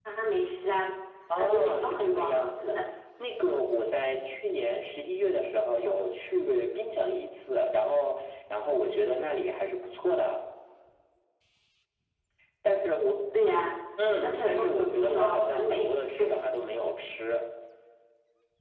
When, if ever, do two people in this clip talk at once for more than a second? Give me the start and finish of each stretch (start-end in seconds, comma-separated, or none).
1.4-2.8, 14.2-15.9